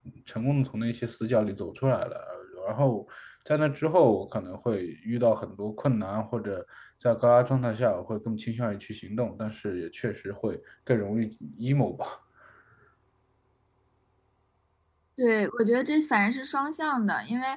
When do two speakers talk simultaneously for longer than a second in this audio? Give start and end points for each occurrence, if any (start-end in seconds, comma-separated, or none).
none